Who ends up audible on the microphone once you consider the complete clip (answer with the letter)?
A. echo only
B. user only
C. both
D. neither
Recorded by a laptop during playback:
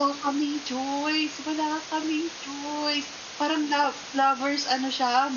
A